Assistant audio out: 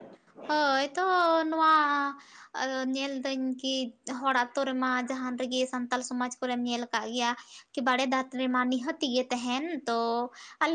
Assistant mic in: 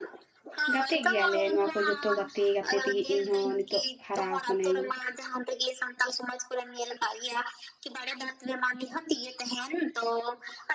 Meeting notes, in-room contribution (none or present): present